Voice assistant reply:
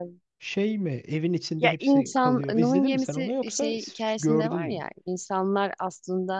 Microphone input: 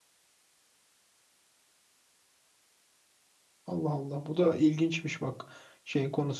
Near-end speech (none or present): present